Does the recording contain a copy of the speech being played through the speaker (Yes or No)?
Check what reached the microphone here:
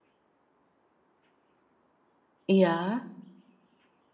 No